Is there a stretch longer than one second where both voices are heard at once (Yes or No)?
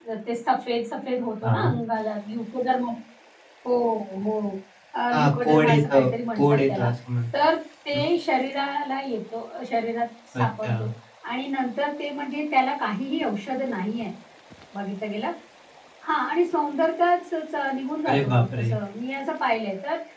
Yes